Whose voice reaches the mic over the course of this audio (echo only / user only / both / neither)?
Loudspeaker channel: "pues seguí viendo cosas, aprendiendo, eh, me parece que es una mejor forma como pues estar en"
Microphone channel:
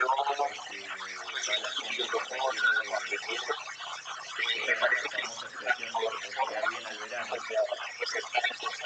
both